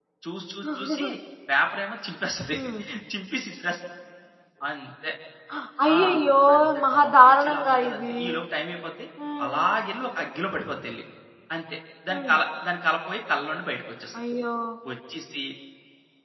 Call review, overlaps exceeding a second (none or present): present